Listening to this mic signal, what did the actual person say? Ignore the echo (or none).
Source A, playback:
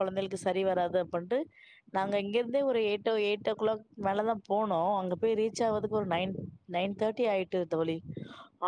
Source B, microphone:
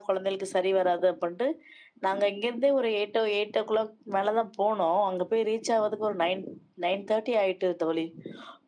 none